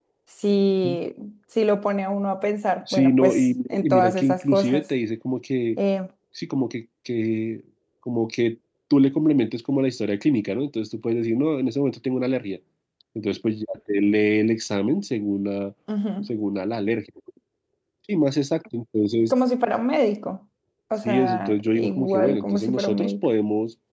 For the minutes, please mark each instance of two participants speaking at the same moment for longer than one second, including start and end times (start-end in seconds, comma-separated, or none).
2.9-4.9, 21.0-23.3